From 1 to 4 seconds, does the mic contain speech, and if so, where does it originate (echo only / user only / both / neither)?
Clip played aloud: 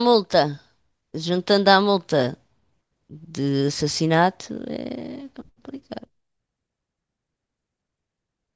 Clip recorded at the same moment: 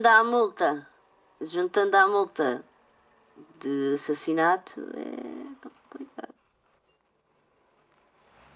echo only